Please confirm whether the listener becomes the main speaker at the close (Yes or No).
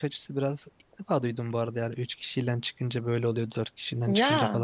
No